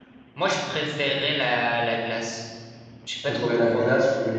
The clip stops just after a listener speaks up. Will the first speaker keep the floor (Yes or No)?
No